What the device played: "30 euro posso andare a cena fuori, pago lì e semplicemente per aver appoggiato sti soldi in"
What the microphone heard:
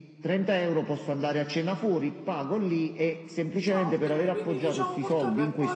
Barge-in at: 3.7 s

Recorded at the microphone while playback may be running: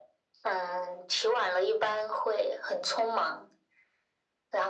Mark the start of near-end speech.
none

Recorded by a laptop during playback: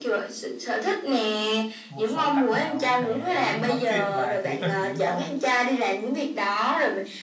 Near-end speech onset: 1.9 s

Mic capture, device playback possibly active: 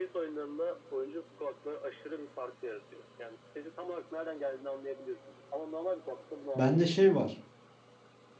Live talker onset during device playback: 6.5 s

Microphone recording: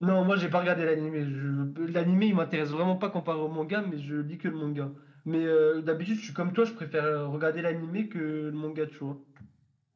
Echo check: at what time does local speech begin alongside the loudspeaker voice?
none

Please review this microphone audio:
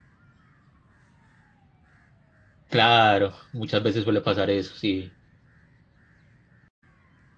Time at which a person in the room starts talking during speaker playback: 2.7 s

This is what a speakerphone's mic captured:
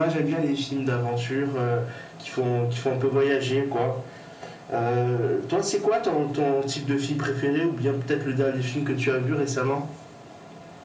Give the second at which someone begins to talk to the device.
none

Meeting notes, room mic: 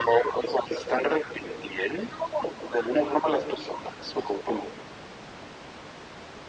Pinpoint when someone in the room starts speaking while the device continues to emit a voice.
none

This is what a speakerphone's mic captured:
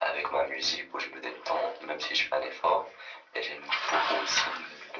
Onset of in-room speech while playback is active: none

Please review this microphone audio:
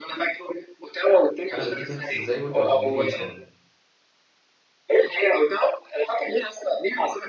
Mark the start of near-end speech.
1.5 s

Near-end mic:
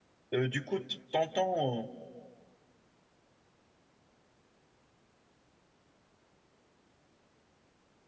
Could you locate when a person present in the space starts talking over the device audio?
0.4 s

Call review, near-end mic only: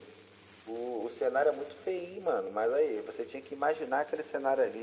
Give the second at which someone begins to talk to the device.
none

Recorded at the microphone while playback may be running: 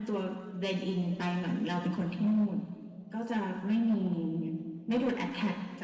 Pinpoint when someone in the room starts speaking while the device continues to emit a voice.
none

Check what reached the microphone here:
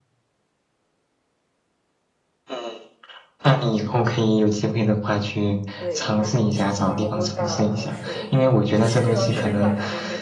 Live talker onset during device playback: 5.8 s

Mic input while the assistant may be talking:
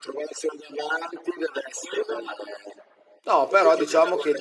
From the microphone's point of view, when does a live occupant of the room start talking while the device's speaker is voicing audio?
3.2 s

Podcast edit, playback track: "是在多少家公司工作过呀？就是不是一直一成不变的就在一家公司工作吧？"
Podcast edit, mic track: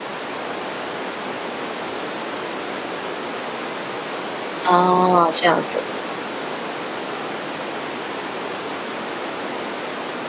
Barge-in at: 4.7 s

